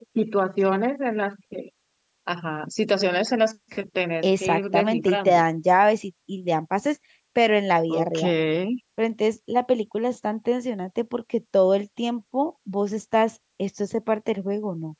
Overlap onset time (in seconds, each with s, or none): 4.2 s